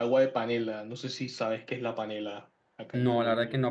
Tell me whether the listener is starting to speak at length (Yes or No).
Yes